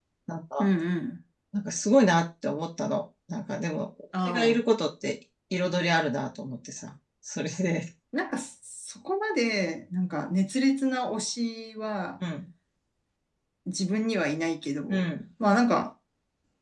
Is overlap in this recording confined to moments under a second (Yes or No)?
Yes